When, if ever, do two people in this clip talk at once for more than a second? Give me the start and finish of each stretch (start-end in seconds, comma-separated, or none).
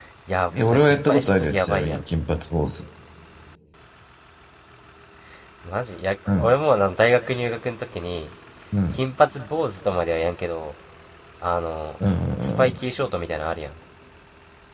0.5-2.1